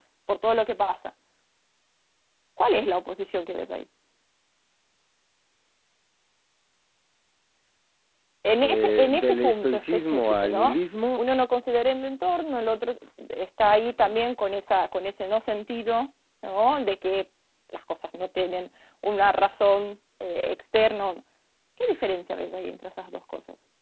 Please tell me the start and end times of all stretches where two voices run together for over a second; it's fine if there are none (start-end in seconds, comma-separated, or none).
8.6-10.7